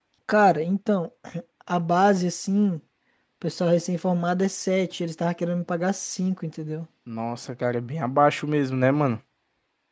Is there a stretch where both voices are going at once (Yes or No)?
No